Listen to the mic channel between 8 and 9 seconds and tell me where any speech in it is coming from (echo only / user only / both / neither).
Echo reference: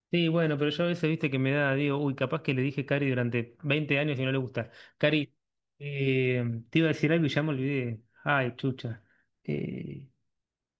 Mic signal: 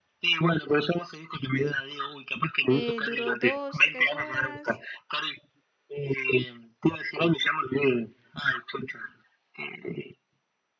echo only